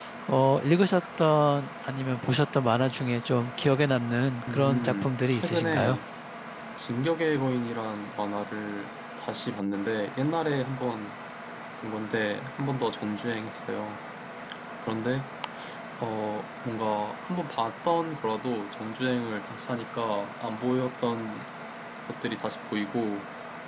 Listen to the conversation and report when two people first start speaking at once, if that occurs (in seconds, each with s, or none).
4.5 s